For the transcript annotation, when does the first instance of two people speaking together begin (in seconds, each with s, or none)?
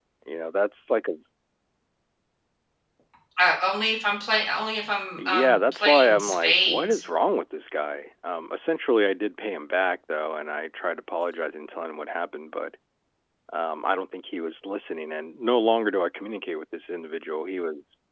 5.2 s